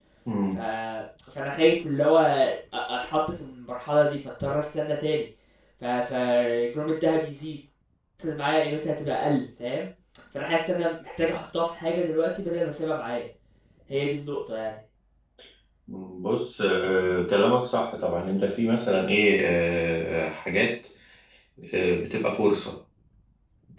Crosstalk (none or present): none